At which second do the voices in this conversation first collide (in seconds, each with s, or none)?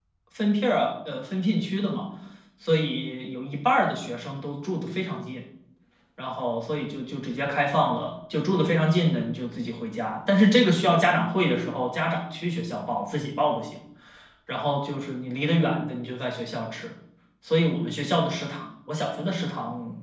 none